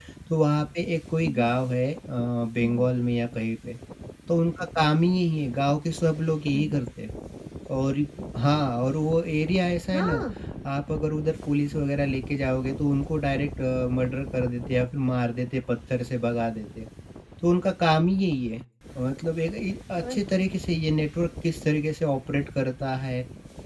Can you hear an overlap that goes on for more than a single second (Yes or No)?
No